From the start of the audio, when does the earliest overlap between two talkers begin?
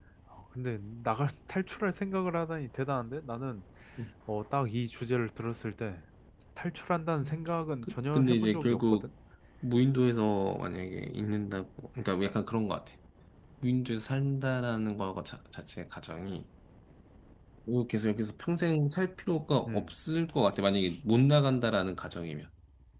8 s

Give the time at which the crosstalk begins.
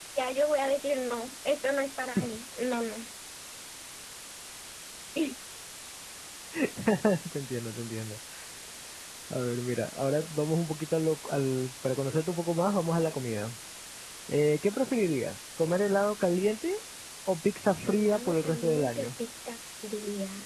18 s

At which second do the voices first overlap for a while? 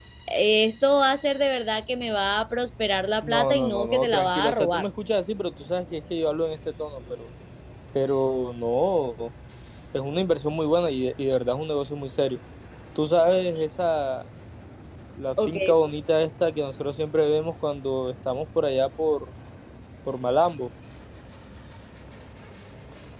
3 s

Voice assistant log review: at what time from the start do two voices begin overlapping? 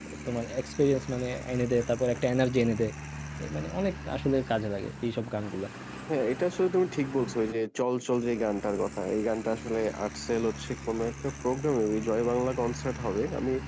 none

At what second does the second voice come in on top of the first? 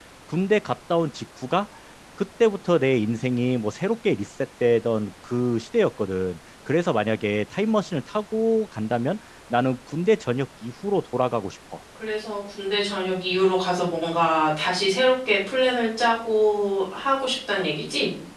none

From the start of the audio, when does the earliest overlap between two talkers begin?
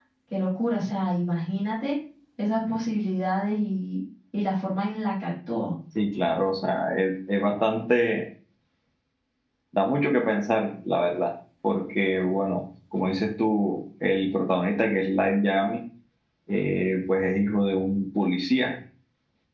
none

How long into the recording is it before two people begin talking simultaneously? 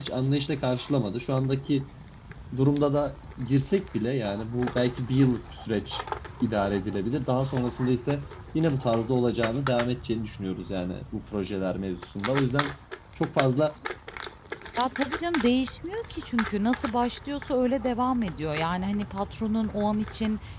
none

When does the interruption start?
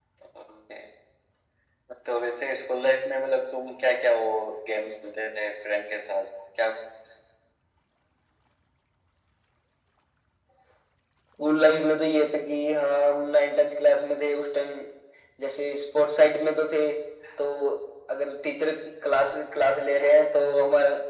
none

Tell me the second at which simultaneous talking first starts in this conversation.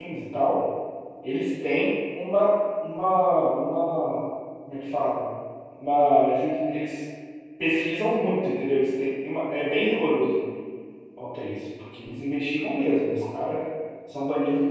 none

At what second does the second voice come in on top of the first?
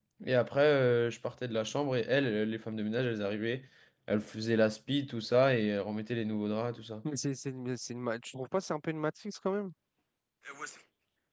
none

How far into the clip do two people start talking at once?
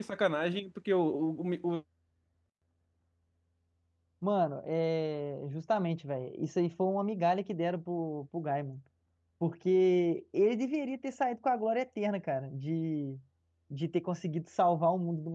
none

